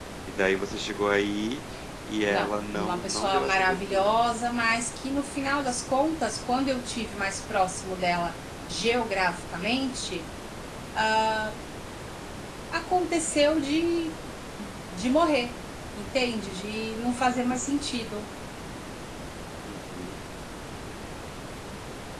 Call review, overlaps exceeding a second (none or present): present